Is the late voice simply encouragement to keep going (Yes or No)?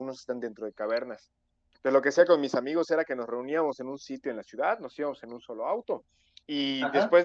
Yes